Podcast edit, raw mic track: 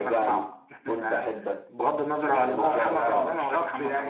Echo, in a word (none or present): present